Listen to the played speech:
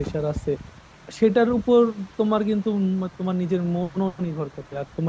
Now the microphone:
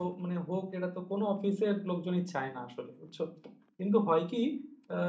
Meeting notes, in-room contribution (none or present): present